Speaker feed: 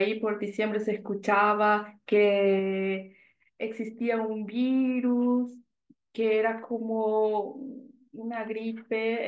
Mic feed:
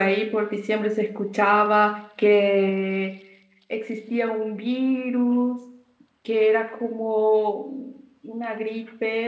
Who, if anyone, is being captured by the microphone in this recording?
echo only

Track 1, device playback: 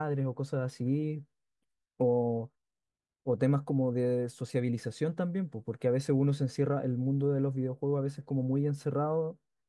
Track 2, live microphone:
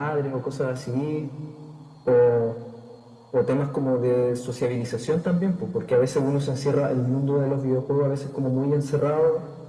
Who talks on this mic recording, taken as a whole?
echo only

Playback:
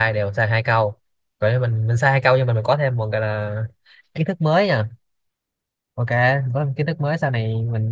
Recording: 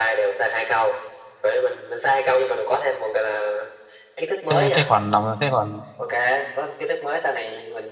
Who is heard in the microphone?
both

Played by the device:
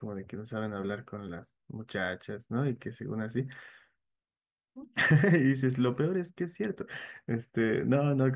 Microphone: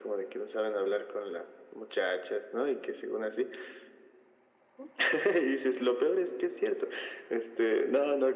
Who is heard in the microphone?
echo only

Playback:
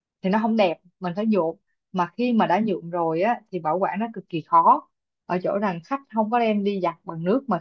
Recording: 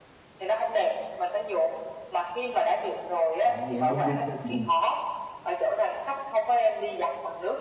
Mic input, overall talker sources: both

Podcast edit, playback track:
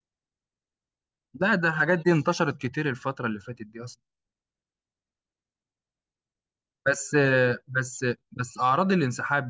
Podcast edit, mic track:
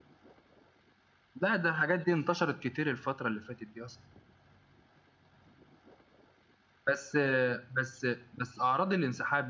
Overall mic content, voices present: echo only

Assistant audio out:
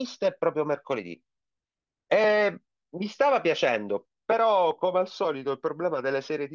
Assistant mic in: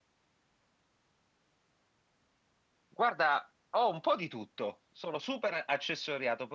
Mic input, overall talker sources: user only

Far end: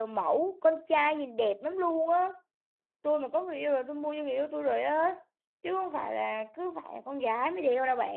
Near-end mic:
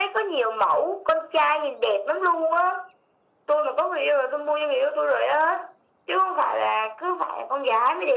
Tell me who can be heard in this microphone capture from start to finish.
echo only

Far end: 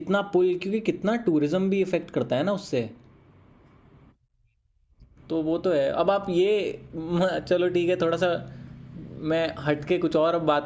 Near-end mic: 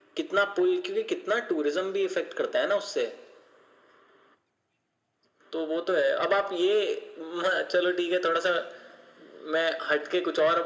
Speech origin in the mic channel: echo only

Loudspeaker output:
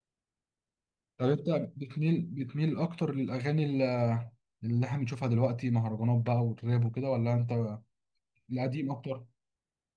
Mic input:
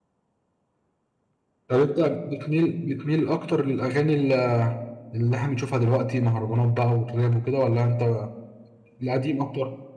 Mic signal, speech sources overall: echo only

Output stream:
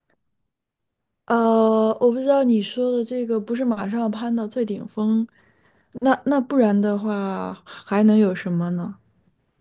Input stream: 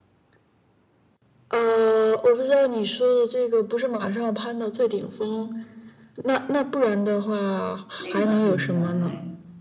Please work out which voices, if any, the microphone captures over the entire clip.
both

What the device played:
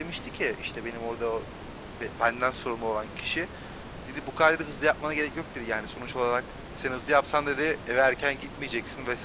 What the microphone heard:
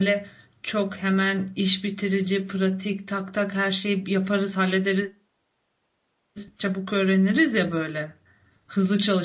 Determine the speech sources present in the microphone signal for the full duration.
user only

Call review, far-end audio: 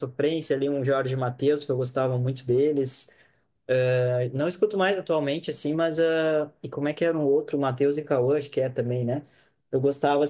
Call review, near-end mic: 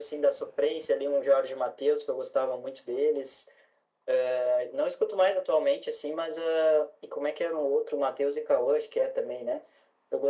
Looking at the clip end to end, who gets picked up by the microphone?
echo only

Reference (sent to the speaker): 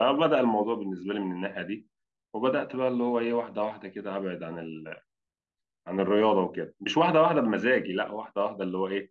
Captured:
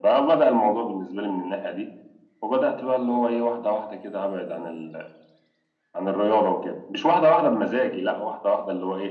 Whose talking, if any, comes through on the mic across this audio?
echo only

